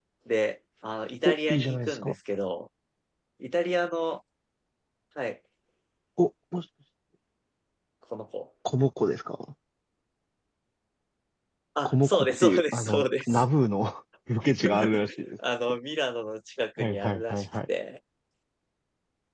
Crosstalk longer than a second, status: present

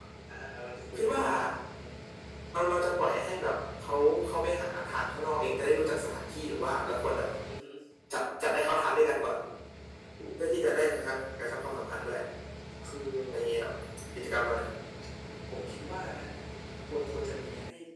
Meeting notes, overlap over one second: none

